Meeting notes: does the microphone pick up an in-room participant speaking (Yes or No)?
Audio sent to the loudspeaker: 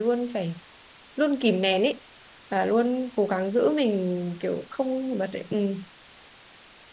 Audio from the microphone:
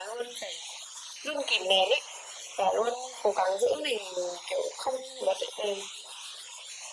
No